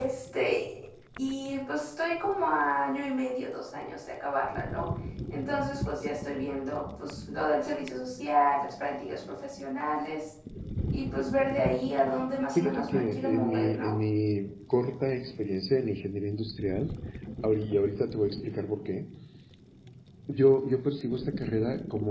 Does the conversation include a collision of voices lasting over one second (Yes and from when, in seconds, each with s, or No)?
Yes, from 12.6 s